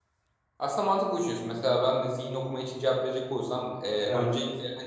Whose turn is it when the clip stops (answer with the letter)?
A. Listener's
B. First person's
B